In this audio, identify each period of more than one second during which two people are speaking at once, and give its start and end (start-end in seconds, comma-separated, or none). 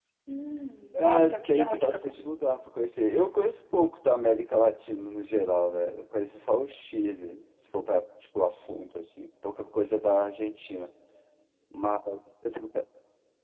0.9-2.2